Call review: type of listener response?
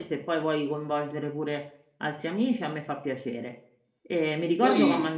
listening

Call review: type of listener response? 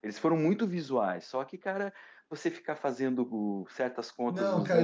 taking over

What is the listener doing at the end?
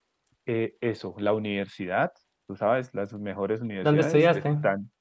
listening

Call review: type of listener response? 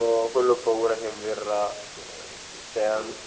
listening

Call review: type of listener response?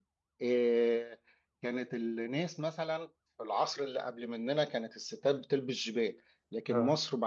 listening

